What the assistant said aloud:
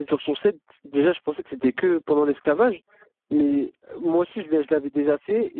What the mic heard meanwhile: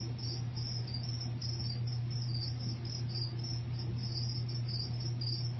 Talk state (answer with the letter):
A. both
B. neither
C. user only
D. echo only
B